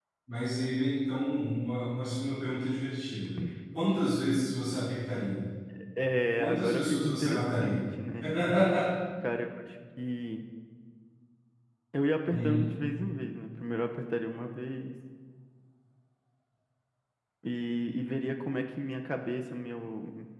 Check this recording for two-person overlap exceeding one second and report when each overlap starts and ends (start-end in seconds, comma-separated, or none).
6.4-7.8